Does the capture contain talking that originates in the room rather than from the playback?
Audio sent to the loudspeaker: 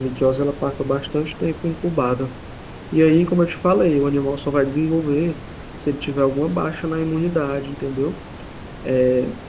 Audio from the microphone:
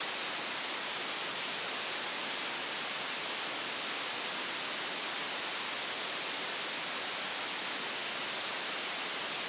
No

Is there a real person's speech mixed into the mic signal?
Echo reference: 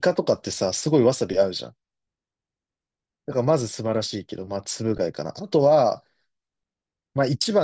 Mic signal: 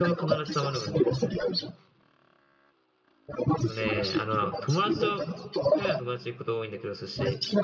Yes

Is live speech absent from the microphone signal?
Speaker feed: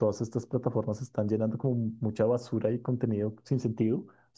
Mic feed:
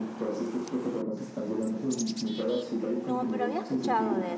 No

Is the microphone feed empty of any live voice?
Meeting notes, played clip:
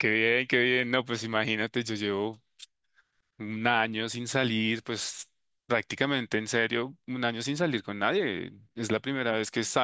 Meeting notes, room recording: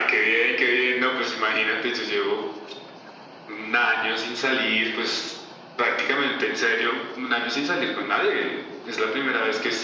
Yes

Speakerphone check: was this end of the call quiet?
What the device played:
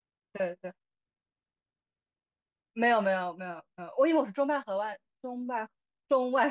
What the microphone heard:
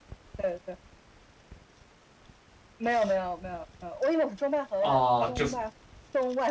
No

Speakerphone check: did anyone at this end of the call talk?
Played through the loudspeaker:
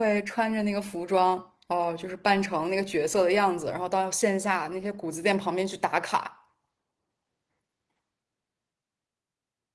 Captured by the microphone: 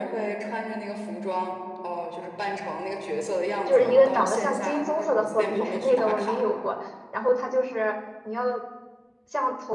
Yes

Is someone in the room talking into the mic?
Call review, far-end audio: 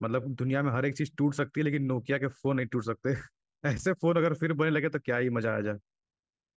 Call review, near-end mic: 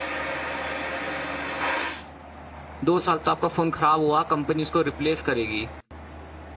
Yes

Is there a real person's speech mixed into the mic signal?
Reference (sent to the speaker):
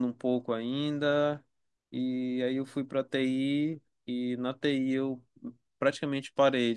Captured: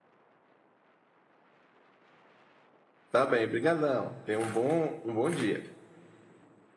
Yes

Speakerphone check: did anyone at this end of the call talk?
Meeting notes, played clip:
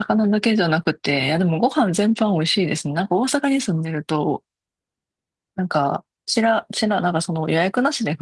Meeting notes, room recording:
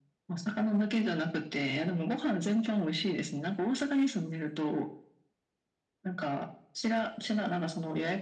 No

